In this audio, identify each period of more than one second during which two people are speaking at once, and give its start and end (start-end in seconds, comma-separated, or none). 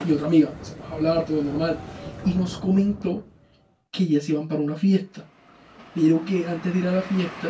none